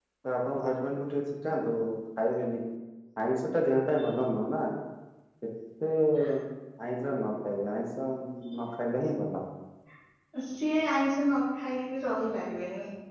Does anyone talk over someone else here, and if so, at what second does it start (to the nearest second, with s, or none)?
none